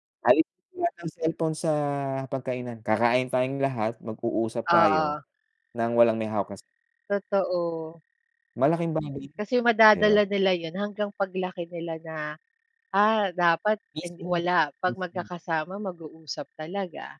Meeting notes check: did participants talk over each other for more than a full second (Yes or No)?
No